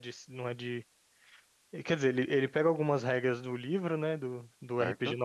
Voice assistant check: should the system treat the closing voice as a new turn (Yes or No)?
No